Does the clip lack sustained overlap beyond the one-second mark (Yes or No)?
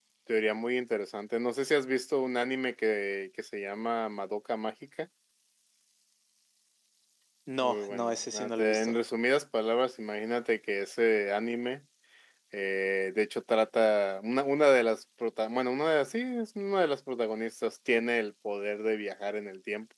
No